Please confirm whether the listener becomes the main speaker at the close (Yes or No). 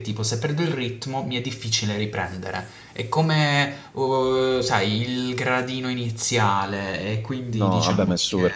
Yes